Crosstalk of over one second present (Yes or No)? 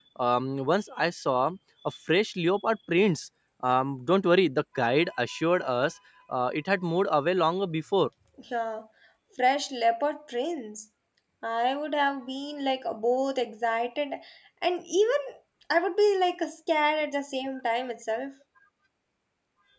No